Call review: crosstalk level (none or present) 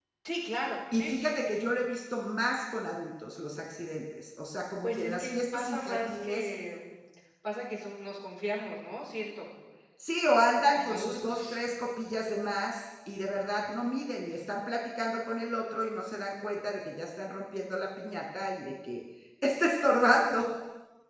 present